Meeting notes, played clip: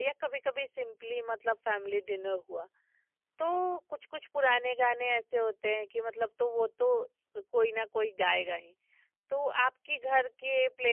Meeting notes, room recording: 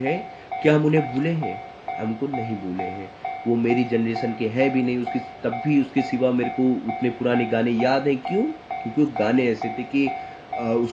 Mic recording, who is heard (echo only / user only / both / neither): user only